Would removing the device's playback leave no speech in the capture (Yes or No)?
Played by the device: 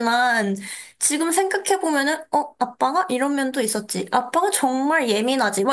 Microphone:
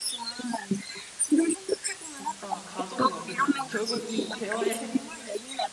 No